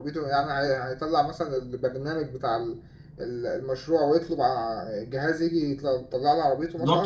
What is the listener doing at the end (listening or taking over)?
taking over